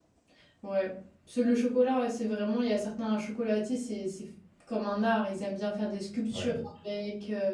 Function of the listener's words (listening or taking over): listening